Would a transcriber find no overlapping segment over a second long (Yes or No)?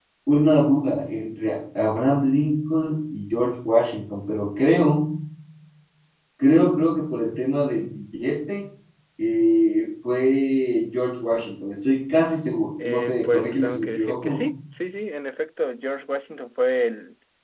No